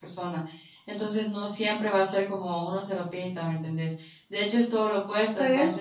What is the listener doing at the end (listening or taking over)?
listening